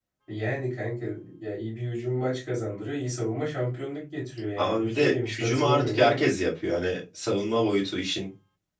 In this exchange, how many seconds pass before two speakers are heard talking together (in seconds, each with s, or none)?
4.6 s